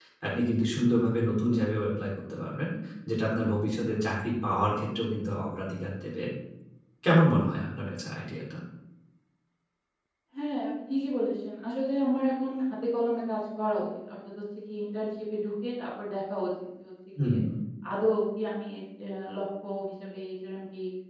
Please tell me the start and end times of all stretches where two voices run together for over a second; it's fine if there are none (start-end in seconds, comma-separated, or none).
none